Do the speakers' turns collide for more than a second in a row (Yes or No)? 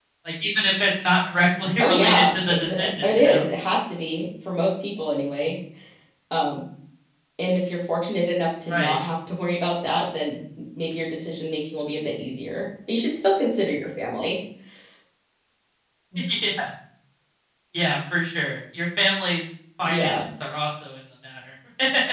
Yes